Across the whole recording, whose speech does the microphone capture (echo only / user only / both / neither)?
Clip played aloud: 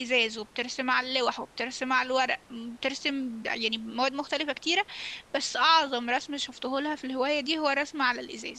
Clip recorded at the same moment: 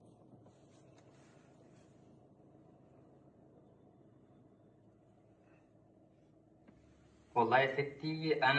user only